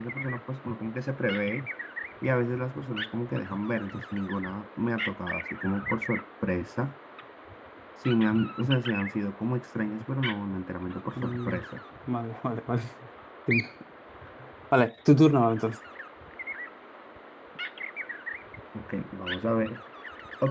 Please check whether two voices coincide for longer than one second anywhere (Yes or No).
No